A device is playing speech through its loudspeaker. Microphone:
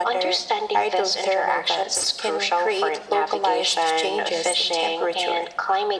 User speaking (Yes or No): No